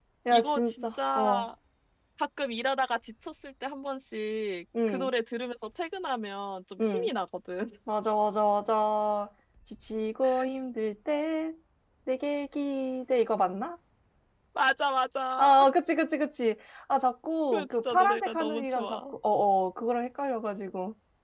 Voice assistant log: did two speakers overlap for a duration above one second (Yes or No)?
Yes